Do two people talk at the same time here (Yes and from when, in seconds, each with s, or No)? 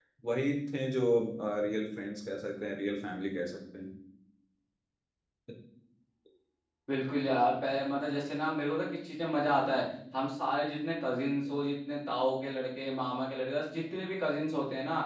No